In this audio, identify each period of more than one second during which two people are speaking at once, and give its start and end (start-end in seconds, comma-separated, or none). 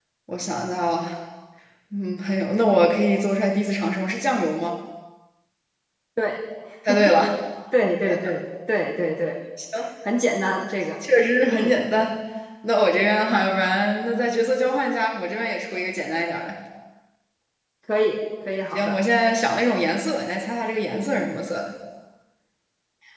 none